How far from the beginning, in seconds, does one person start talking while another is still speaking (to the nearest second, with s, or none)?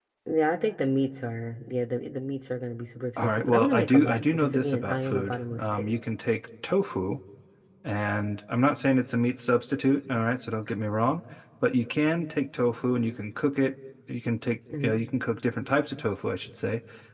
3 s